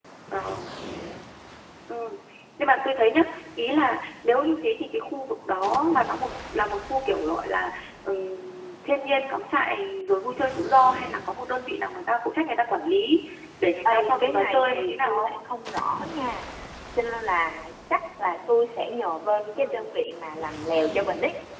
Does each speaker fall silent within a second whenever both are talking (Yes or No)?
No